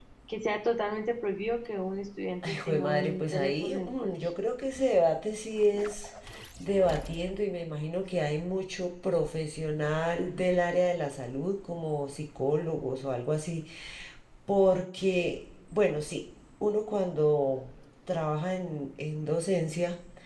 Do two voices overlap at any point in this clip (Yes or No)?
Yes